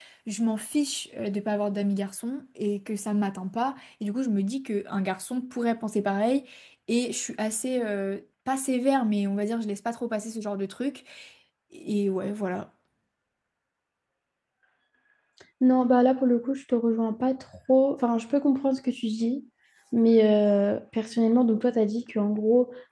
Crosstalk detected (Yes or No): No